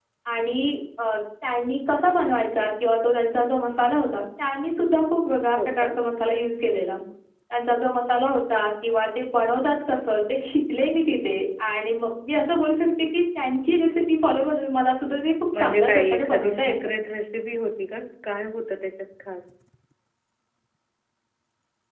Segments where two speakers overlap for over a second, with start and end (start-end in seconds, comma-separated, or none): 15.6-16.9